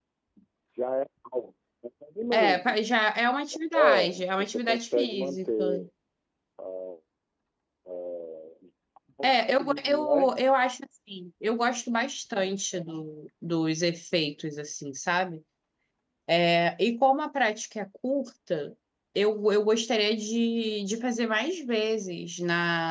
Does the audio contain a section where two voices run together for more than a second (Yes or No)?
Yes